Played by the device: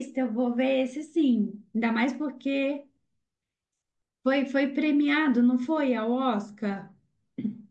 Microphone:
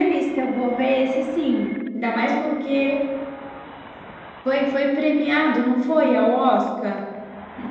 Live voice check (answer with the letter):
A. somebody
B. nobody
B